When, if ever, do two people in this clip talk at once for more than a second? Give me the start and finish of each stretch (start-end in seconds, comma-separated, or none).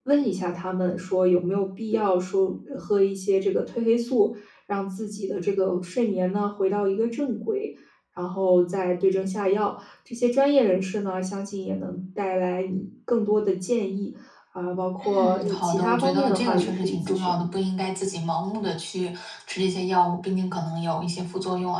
15.0-17.4